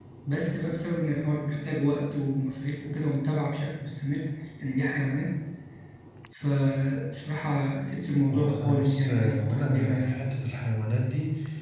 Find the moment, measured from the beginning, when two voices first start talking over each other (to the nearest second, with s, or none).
8 s